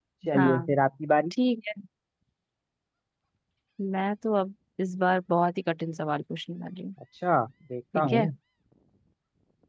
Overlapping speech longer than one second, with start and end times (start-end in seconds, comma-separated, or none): none